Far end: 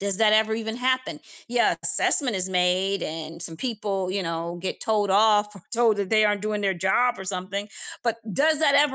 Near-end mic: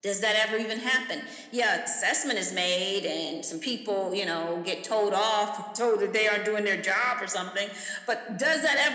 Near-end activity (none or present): none